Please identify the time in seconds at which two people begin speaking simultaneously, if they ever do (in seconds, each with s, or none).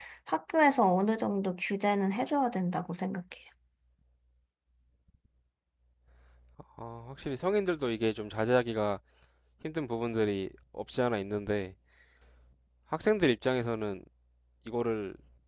none